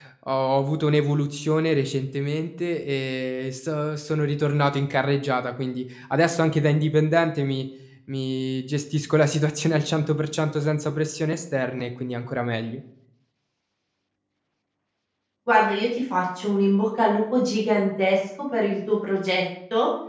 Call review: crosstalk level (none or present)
none